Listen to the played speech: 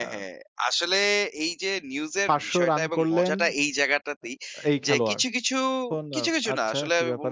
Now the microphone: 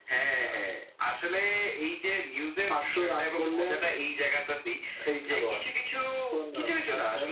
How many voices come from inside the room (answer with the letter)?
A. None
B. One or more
A